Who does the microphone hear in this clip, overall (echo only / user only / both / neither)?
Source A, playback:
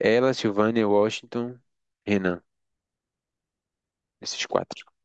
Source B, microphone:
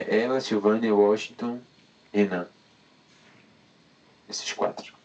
echo only